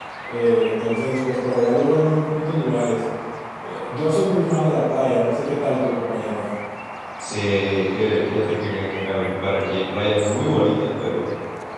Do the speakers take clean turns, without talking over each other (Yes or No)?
Yes